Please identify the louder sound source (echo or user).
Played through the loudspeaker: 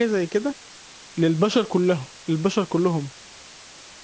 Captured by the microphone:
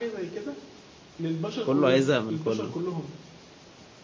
user